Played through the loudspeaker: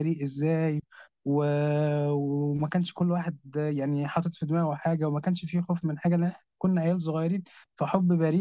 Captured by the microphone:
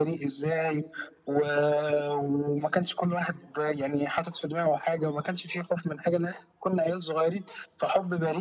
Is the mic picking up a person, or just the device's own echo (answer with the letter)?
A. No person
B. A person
A